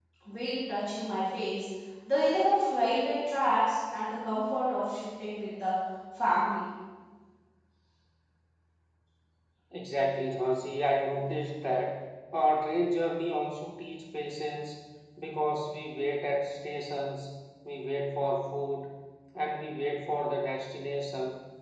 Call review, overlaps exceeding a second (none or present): none